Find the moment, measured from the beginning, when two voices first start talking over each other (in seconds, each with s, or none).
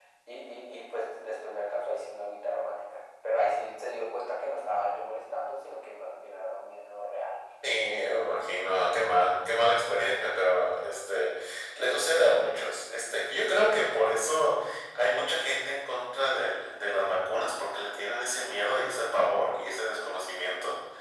none